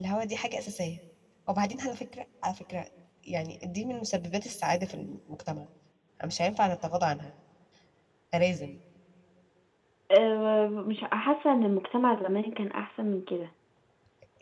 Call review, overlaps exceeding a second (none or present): none